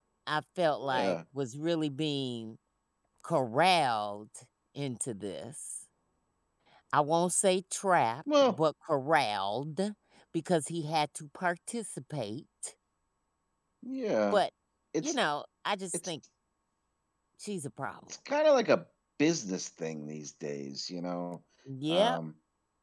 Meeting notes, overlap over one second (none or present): none